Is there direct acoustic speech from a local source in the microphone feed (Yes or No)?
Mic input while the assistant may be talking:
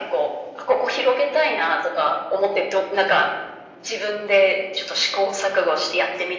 No